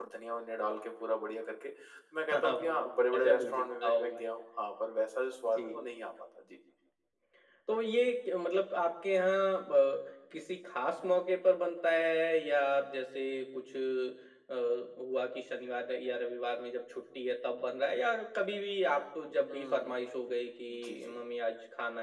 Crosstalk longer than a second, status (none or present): present